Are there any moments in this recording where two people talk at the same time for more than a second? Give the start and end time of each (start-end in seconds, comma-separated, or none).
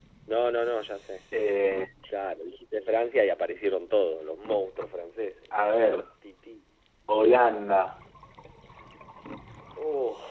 none